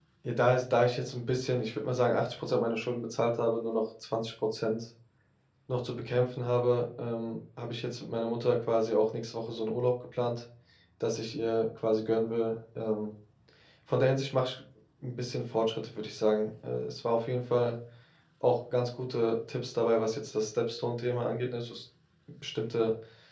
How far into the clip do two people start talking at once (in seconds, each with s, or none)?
none